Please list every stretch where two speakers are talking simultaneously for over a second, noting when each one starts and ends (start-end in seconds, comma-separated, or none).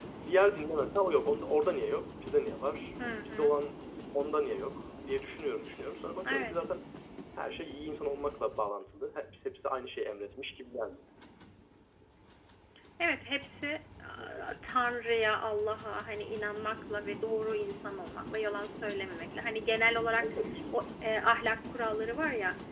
none